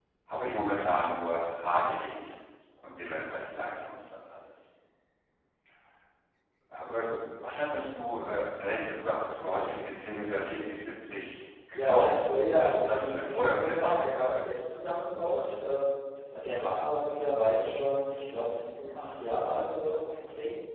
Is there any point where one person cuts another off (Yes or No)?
Yes